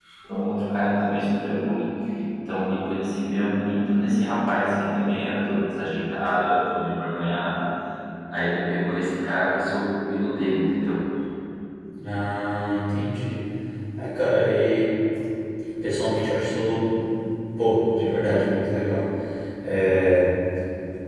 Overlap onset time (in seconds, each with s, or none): none